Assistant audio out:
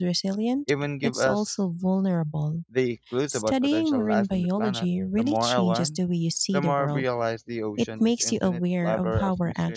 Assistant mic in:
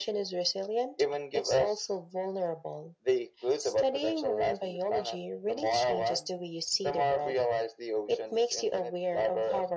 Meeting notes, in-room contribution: none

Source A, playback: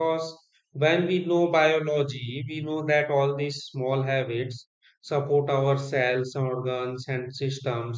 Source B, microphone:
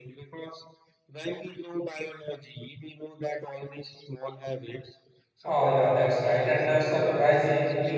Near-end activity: present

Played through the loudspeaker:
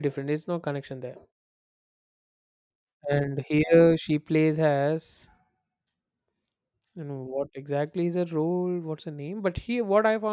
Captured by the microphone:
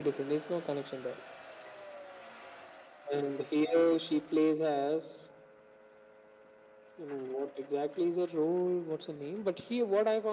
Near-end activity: none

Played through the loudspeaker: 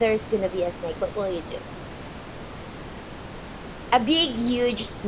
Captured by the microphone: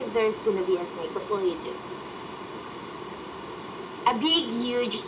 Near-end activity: none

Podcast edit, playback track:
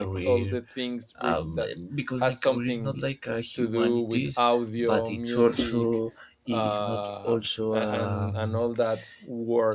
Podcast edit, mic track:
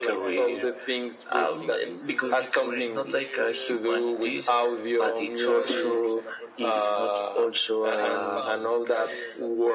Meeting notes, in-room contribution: present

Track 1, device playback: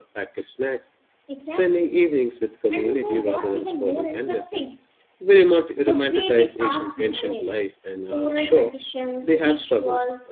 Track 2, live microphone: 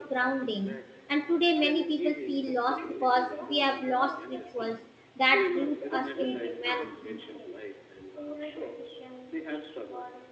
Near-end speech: present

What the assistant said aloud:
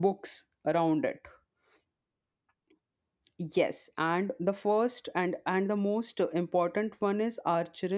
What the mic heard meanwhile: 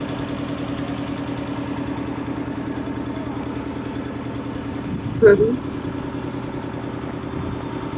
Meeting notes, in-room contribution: present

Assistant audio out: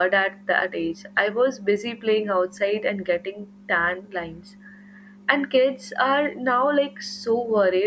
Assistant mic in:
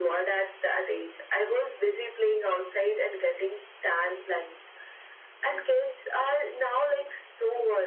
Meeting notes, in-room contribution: none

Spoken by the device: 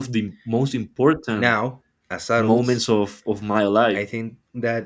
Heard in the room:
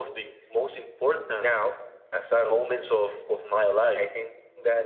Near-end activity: none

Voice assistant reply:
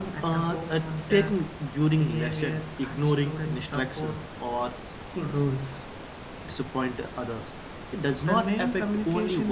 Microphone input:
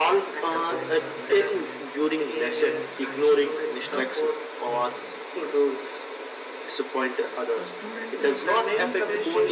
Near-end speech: present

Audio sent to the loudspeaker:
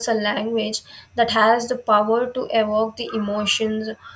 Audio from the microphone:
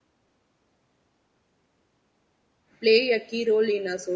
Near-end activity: present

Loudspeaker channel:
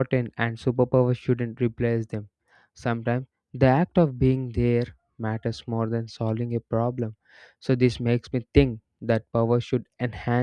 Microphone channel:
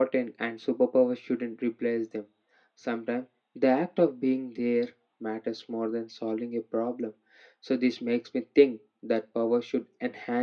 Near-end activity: none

